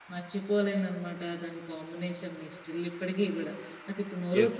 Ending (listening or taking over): taking over